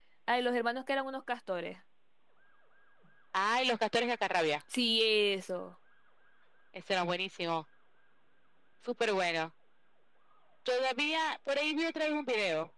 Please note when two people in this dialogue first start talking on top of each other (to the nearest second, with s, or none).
none